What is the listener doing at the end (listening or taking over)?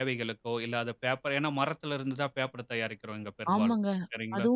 taking over